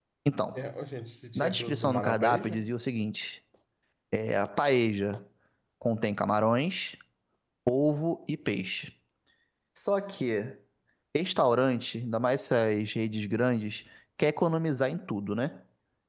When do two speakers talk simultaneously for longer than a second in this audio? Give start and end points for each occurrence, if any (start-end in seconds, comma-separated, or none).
1.4-2.6